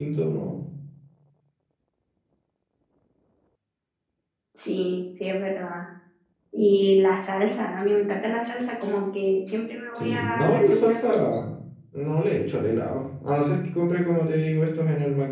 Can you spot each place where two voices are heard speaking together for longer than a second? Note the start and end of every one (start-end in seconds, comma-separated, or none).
10.0-11.4